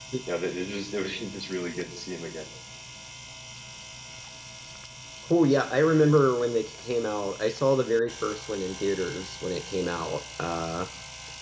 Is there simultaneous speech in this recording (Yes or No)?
No